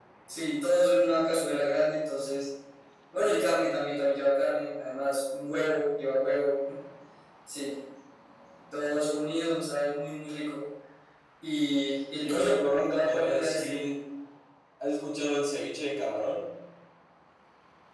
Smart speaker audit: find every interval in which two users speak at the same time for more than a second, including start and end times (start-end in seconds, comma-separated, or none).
12.2-13.8